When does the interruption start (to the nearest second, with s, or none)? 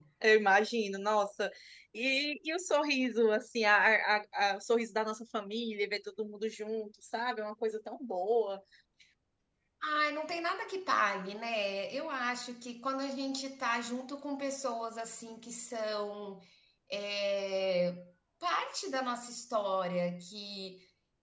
none